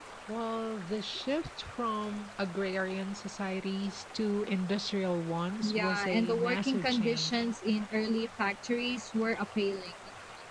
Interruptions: present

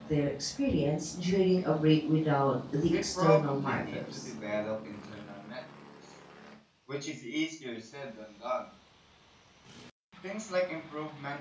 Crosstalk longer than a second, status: present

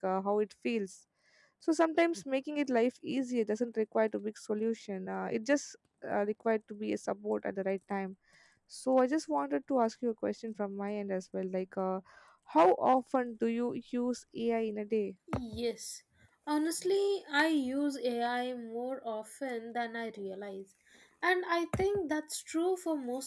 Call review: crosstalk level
none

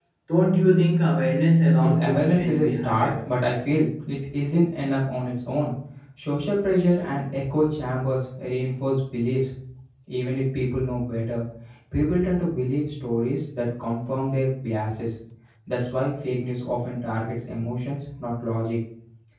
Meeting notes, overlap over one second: present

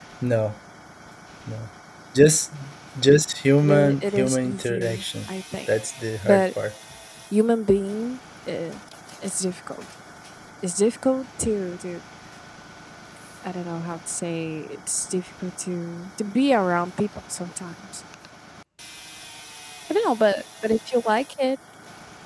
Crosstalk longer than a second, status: present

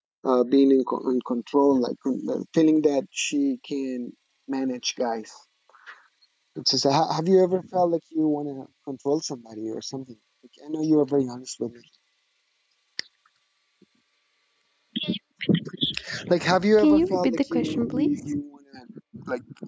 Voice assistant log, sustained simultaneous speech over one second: present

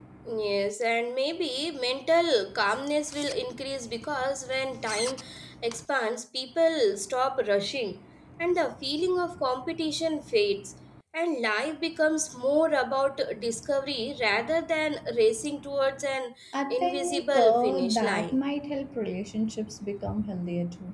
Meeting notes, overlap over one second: present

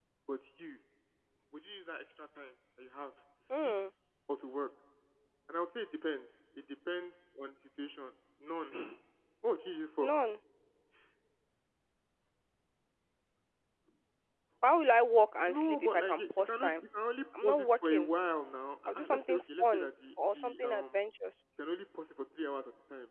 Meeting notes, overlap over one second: present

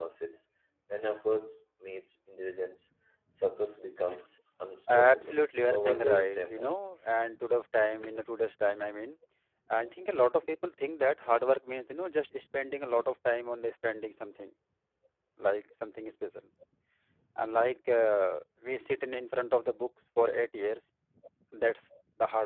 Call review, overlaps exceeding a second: present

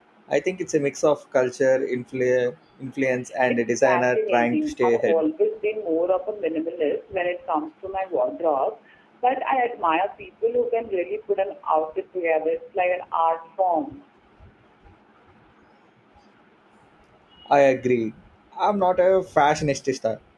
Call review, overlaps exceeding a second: present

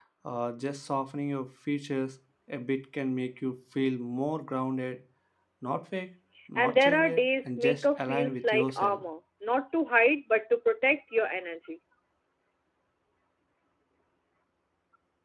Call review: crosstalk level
present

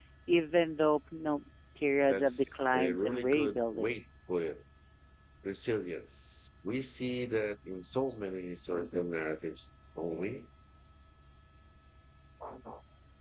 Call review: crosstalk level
present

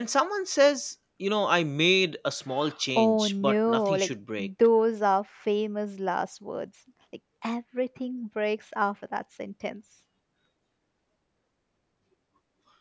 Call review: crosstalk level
present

